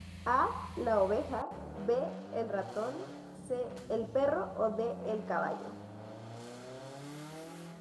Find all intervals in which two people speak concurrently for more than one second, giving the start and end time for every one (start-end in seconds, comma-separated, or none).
none